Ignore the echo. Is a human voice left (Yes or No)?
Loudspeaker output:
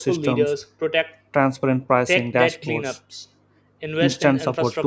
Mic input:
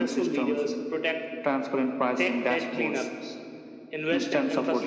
No